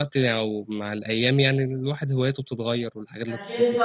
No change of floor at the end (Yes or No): No